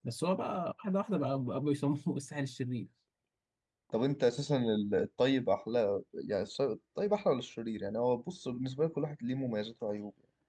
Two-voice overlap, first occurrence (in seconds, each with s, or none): none